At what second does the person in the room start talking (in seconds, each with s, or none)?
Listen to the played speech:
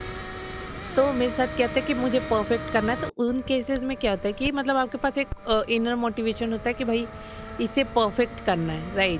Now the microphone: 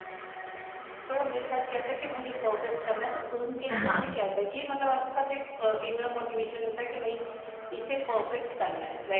3.7 s